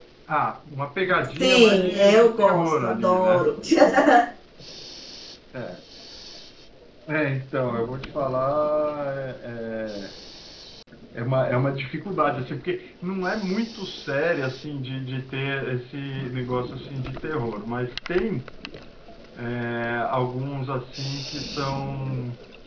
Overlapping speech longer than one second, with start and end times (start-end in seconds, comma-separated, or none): 1.4-3.5